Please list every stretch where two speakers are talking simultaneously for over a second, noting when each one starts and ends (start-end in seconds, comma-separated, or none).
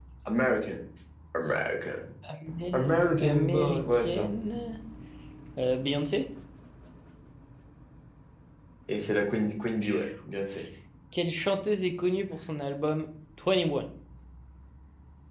2.7-4.3